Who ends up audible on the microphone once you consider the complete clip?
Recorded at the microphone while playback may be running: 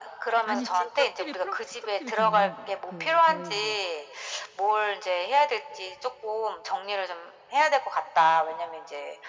both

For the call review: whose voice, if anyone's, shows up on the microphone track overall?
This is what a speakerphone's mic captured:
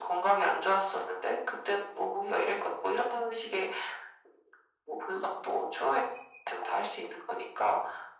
echo only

